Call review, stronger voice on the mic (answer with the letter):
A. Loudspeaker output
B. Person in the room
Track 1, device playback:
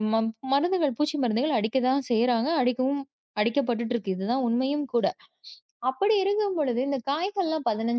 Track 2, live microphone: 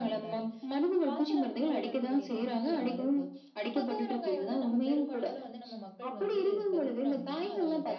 A